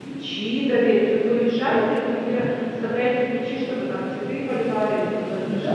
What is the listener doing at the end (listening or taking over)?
taking over